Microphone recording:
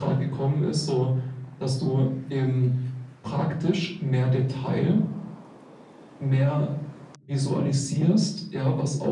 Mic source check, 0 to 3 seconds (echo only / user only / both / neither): echo only